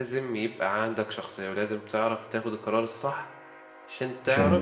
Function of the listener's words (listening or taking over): listening